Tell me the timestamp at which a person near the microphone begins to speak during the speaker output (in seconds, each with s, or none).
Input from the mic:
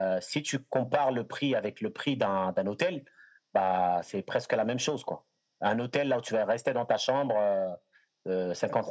none